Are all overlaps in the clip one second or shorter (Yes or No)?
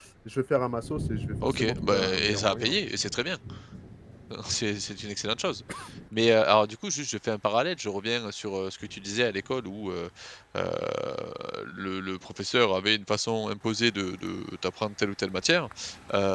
No